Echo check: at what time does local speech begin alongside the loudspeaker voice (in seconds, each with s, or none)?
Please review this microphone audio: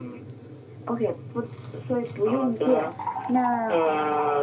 none